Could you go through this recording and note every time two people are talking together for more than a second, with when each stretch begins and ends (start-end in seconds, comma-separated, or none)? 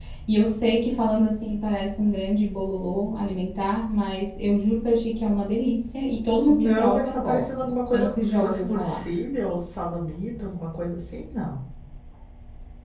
6.5-9.0